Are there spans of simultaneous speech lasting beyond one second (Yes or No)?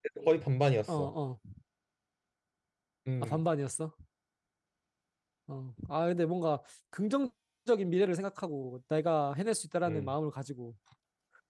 No